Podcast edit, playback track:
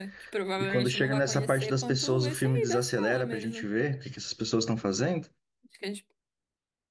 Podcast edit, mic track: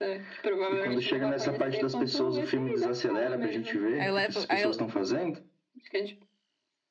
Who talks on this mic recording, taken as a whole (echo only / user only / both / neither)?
both